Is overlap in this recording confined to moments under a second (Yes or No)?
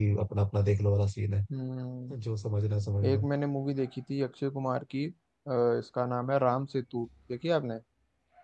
Yes